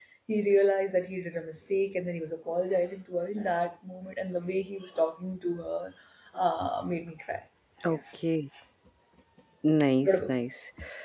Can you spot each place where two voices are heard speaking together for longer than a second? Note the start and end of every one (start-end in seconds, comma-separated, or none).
none